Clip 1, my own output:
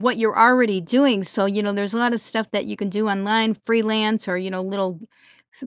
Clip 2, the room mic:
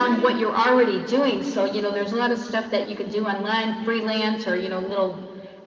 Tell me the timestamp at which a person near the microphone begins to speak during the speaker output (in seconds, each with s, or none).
none